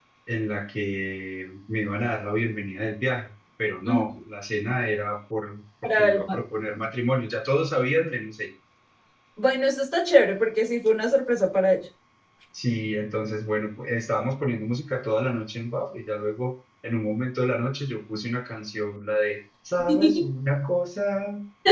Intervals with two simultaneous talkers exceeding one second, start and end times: none

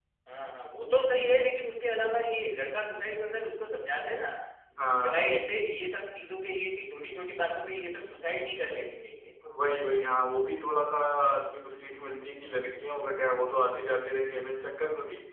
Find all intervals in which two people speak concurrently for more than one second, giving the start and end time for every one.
none

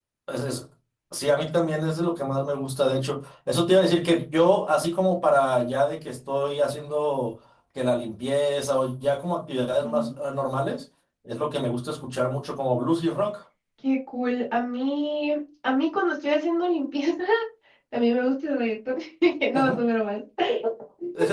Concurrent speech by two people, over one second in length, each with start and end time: none

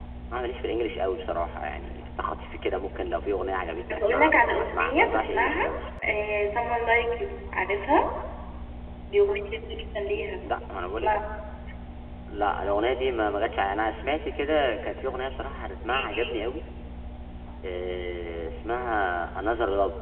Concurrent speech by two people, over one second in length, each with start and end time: 3.9-5.7

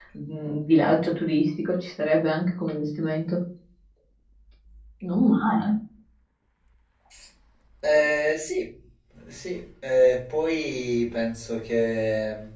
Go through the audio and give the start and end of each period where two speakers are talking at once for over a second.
none

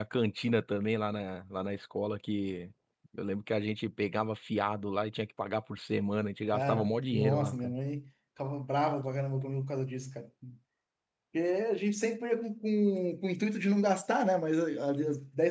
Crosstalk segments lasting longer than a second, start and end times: 6.5-7.7

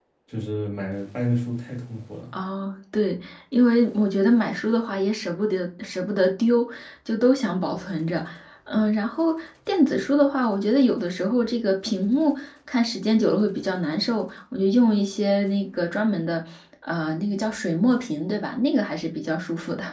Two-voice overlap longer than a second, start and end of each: none

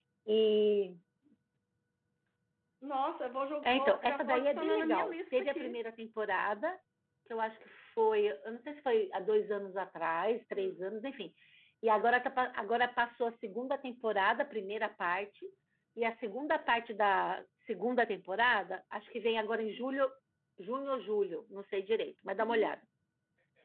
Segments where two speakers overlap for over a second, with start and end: 3.6-5.8

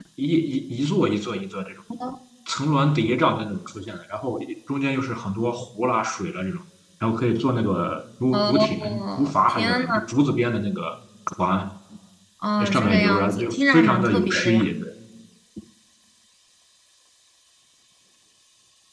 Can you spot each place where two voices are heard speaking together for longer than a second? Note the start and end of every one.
8.3-9.9, 12.6-14.7

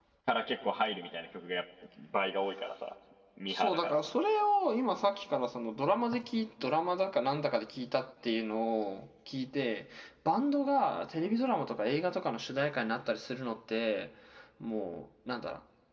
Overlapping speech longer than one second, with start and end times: none

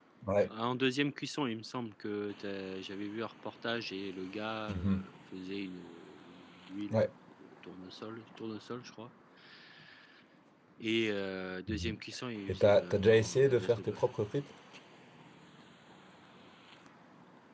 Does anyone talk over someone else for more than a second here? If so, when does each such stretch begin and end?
12.5-14.1

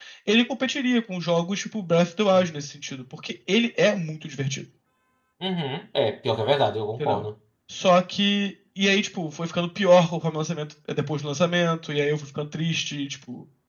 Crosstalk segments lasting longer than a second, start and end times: none

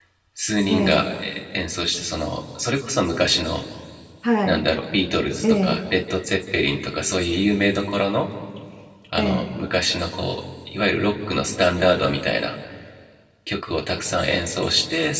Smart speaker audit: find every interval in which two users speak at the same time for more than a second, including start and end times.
none

